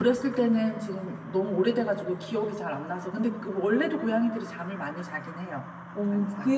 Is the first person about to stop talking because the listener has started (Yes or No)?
Yes